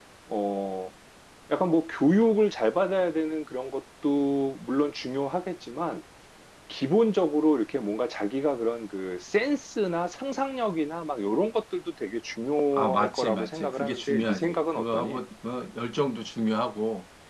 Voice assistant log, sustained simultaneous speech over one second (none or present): present